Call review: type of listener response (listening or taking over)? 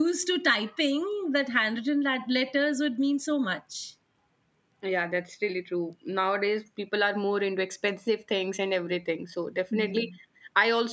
listening